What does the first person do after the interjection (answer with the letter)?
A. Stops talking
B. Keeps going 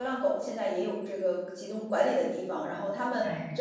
B